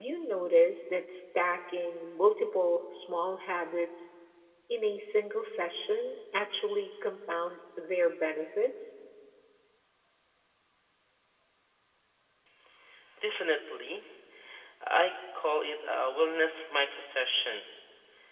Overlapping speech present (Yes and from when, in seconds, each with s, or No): No